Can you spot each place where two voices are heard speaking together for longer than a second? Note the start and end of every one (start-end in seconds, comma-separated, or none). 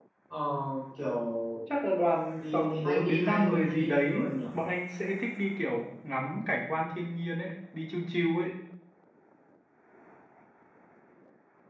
2.4-4.3